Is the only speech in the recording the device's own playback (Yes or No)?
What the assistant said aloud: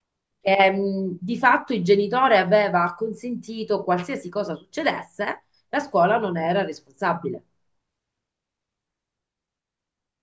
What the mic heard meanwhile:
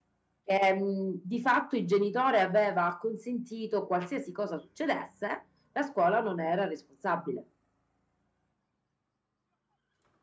Yes